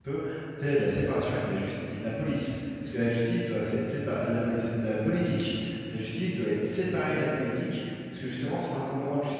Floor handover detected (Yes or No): No